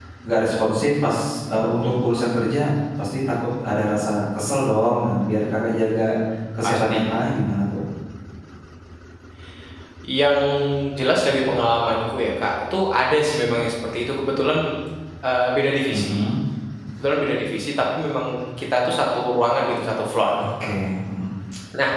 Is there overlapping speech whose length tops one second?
No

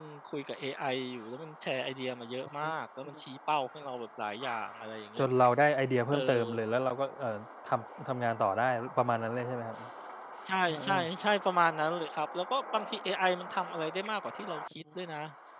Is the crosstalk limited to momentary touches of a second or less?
Yes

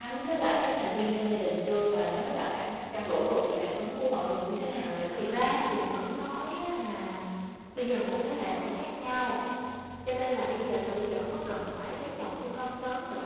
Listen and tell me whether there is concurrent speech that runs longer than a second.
No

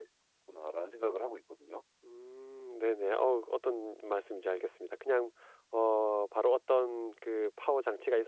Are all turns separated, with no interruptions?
Yes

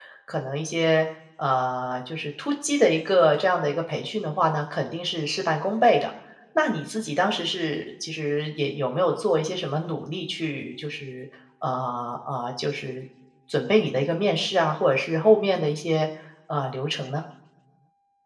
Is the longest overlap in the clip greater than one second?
No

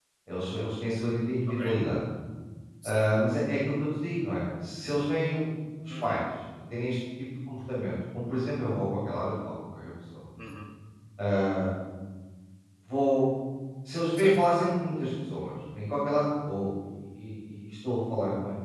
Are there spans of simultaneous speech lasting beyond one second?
No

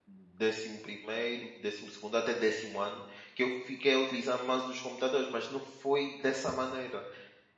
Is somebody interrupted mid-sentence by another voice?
No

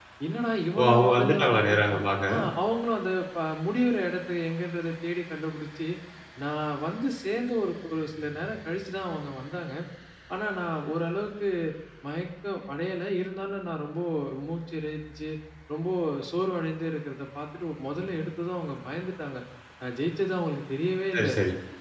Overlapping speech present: Yes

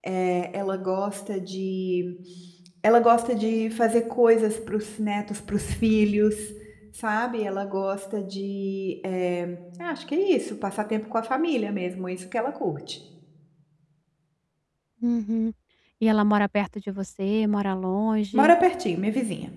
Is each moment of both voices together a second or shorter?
Yes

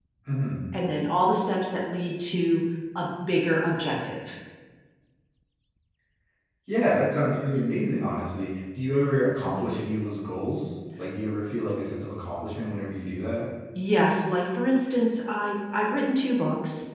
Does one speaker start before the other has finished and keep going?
No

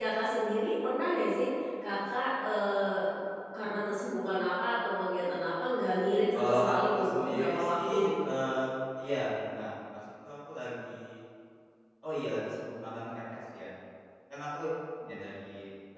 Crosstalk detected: Yes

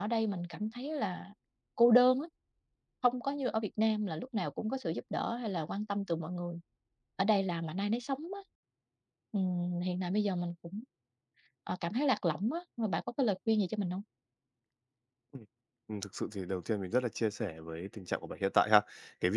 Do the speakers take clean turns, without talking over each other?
Yes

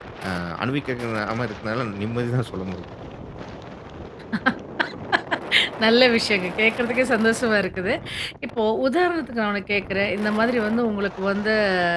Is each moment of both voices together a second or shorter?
Yes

